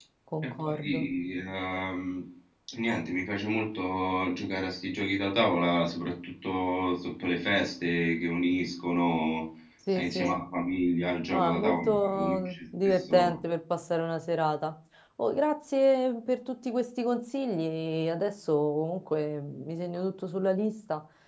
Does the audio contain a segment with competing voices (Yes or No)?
Yes